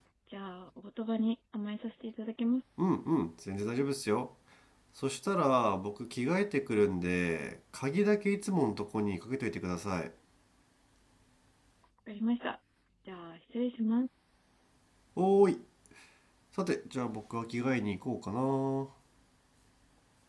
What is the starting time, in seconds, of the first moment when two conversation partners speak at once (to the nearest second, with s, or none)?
none